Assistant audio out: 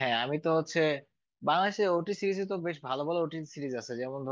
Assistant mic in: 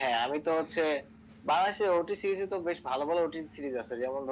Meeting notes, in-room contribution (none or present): none